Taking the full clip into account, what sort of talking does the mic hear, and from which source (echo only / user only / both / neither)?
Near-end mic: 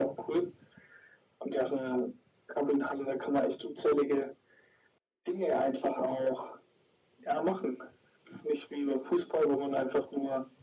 echo only